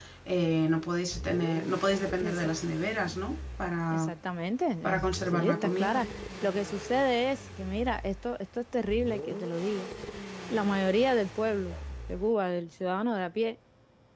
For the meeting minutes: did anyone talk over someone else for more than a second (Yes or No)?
Yes